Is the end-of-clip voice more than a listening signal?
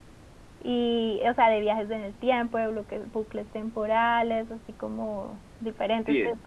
No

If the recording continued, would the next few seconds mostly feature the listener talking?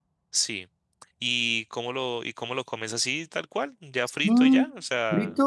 Yes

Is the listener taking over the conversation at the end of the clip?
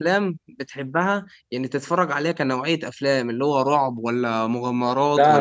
Yes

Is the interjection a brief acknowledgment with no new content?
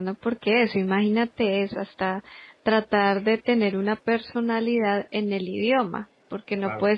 Yes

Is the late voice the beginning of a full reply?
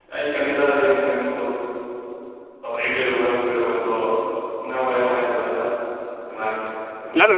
Yes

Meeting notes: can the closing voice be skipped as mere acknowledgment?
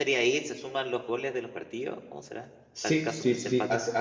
No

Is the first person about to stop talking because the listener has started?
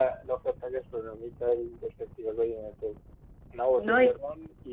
No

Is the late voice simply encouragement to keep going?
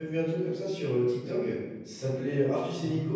Yes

